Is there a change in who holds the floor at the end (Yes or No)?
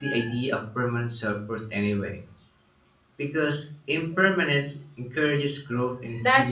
Yes